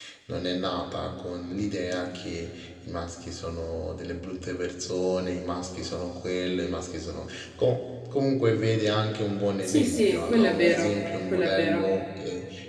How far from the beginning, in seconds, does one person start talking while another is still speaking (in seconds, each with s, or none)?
9.6 s